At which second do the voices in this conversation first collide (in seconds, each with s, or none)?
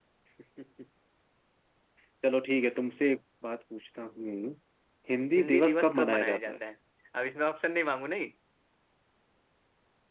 5.4 s